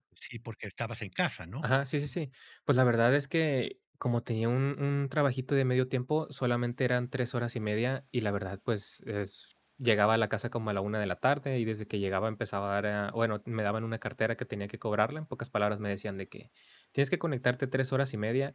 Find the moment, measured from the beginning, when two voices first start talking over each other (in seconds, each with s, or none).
none